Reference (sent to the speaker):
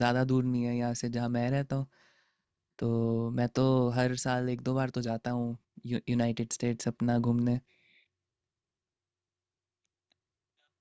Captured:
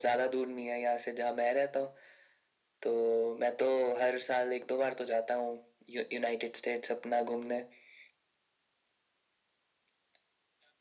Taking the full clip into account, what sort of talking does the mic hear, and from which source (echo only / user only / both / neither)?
echo only